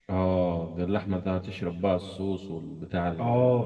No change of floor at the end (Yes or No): No